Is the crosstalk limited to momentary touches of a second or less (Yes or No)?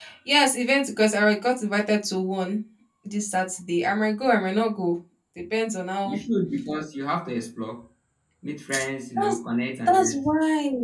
Yes